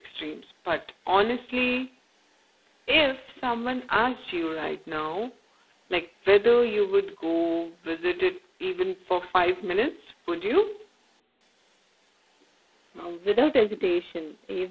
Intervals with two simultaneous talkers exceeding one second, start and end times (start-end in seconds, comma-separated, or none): none